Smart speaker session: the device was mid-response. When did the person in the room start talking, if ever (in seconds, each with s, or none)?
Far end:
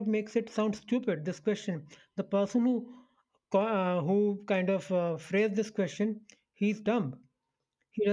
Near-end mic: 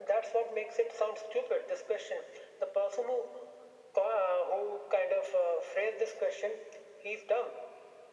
none